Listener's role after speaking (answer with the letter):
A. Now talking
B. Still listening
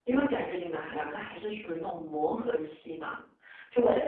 B